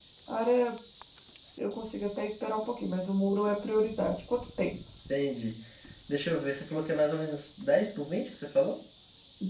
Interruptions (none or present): none